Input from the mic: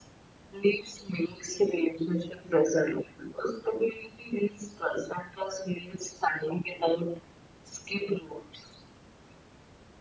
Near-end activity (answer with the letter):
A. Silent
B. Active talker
A